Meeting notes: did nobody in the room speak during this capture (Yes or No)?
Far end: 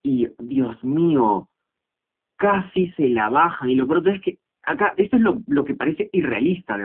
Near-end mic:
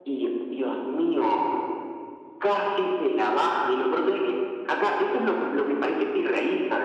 Yes